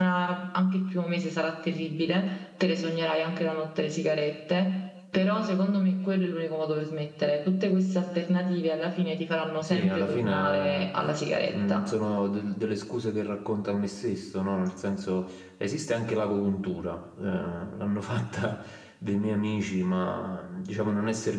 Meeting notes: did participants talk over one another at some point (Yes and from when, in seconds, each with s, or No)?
Yes, from 9.6 s